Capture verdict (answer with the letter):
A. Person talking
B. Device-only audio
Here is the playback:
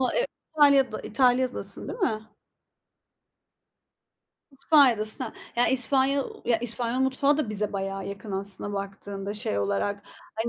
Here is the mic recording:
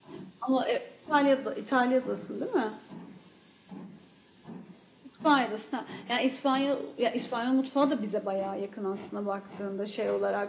B